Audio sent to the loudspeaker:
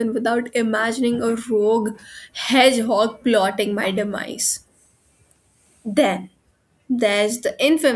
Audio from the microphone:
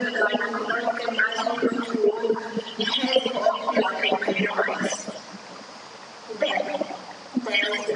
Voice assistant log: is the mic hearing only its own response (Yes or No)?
Yes